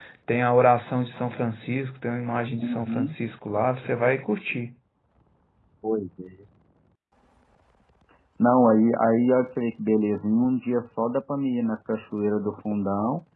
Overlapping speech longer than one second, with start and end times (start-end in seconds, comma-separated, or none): none